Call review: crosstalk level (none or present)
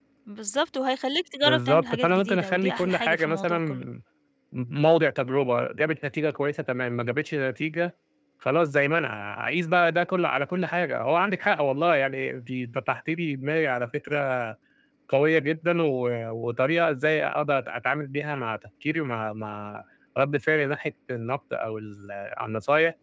present